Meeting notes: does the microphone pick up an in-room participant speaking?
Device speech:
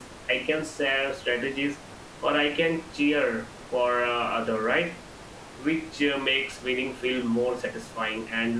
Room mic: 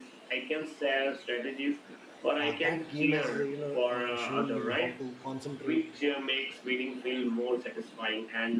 Yes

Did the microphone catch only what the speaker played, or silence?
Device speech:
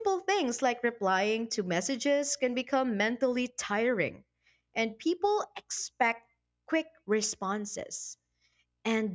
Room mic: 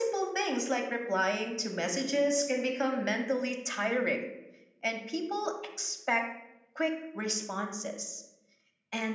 Yes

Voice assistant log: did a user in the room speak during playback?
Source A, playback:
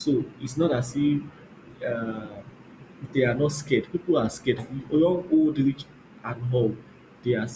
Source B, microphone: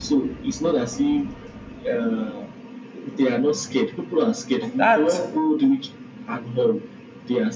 Yes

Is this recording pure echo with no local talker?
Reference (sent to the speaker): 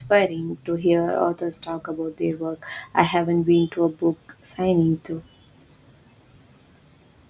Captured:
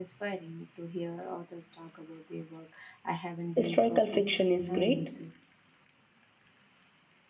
No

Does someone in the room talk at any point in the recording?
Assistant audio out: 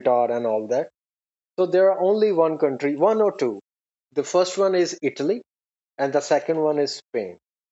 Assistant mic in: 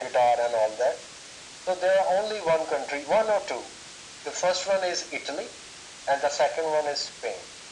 No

